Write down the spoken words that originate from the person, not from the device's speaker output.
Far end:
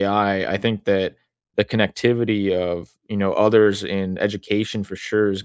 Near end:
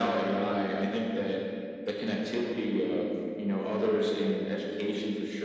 none

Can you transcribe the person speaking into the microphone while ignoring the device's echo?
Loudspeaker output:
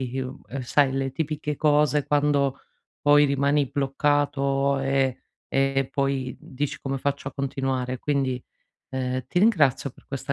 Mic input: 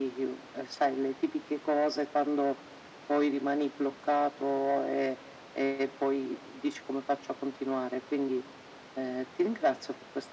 none

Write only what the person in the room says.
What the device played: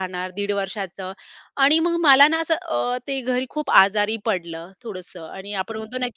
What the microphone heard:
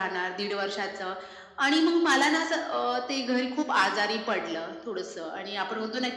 none

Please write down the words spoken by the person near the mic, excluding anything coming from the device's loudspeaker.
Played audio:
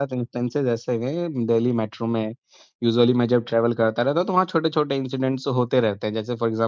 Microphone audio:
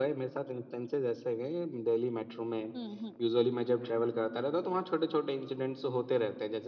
हुँ, हुँ, हुँ,

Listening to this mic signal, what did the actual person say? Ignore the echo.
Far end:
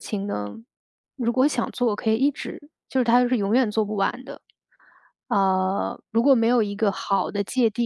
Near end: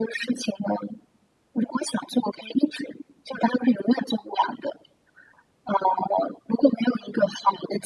none

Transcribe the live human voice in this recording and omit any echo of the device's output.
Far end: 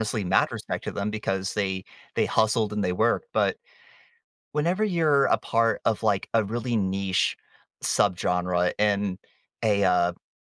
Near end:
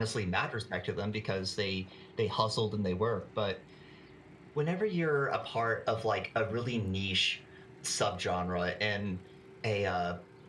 none

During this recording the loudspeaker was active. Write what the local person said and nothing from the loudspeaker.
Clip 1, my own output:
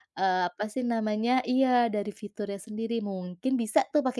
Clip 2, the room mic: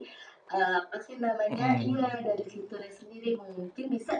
Mhm.

